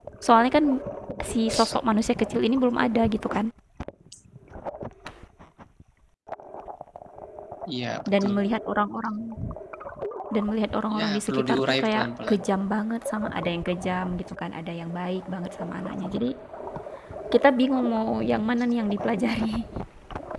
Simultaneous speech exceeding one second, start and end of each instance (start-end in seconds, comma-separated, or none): 11.0-12.4